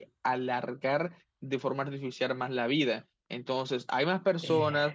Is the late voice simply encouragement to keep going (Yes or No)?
Yes